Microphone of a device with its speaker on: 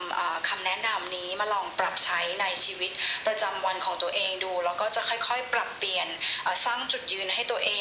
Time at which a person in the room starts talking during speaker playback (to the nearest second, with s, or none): none